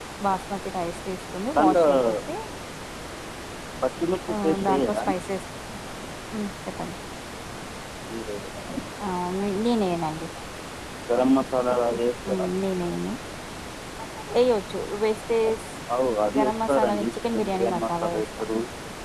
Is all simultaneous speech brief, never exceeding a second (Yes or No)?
No